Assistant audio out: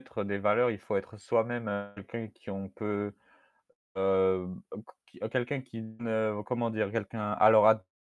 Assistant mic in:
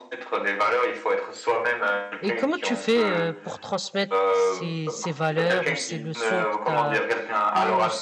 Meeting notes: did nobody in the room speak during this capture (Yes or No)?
No